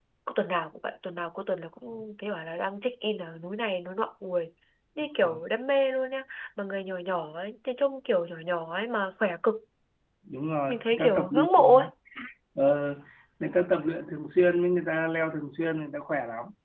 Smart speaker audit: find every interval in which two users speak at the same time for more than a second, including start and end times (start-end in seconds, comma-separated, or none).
10.7-11.9